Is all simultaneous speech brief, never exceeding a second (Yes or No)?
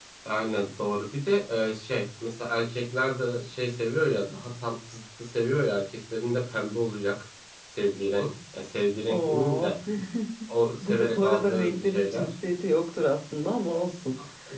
No